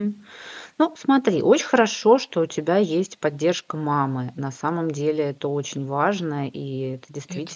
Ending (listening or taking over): listening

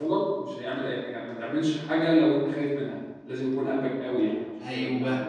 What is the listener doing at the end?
taking over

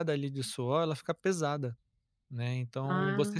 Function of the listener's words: listening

